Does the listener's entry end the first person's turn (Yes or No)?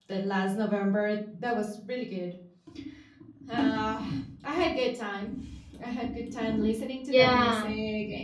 No